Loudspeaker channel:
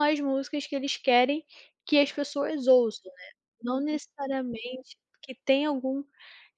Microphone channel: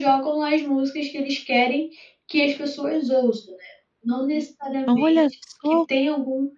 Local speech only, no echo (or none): Olha só.